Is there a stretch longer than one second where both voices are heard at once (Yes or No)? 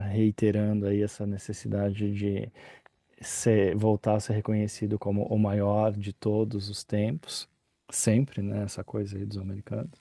No